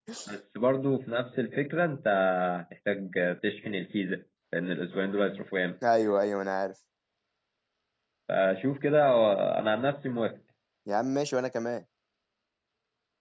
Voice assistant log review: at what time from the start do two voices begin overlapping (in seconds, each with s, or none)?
none